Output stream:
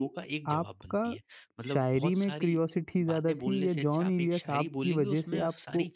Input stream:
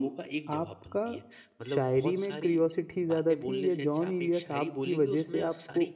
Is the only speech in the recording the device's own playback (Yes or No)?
Yes